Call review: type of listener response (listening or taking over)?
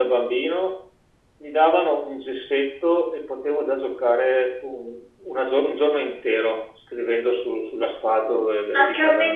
taking over